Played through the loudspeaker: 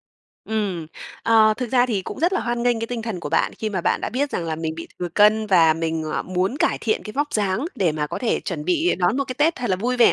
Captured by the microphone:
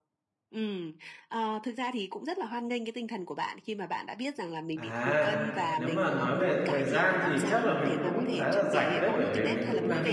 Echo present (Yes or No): Yes